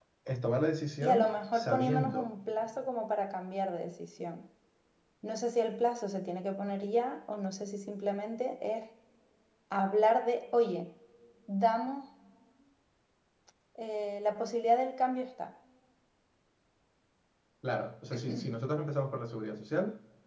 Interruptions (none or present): present